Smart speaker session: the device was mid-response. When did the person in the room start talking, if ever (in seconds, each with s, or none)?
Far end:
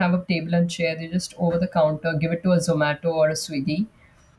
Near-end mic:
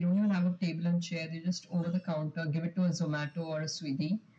none